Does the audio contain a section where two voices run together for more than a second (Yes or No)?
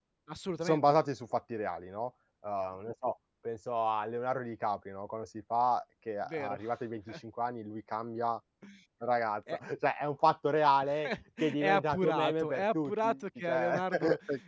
Yes